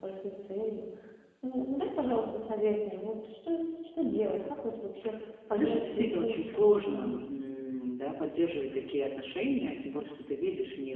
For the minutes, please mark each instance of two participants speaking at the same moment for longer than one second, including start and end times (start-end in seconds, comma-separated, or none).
5.5-6.7